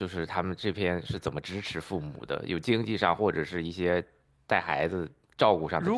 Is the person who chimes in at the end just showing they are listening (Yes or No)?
No